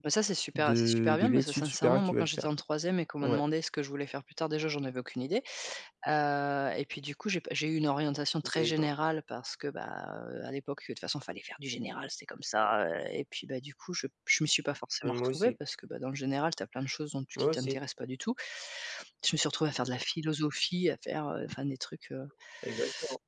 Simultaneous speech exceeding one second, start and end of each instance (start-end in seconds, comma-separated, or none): 0.6-2.5